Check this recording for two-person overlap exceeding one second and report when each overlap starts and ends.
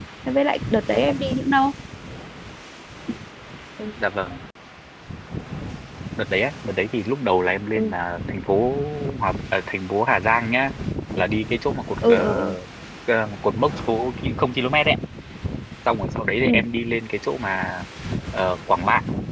none

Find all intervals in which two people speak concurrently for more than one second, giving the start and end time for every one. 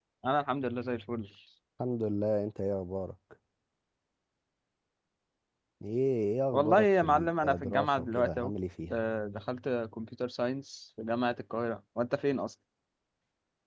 6.5-8.5

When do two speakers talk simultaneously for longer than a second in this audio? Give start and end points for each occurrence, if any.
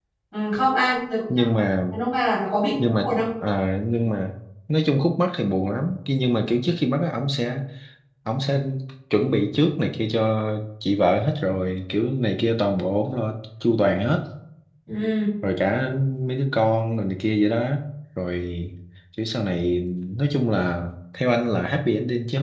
none

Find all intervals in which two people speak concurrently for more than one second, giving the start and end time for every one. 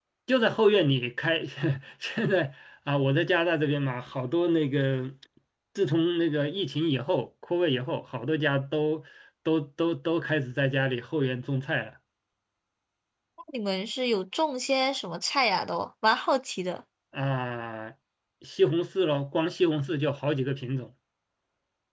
none

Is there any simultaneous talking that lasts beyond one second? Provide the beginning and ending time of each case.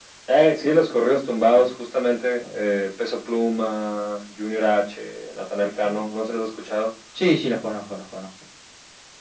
none

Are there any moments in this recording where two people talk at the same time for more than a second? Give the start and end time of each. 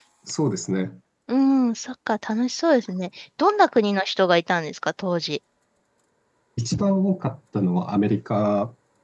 none

